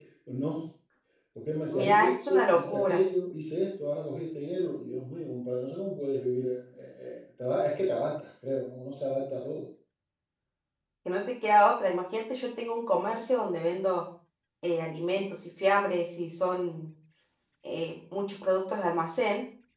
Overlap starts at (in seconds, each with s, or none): 1.7 s